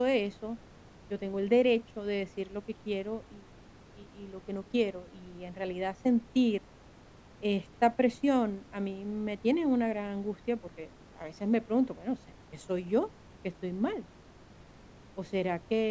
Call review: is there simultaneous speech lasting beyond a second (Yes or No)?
No